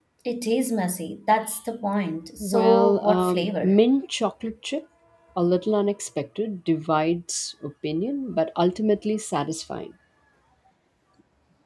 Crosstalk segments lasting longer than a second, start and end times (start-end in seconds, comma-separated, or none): 2.4-3.8